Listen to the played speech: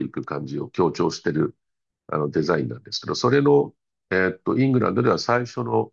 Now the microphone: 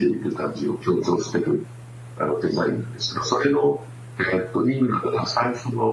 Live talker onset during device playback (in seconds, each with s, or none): none